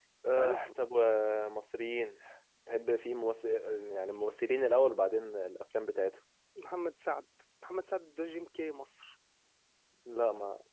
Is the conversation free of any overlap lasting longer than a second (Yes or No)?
Yes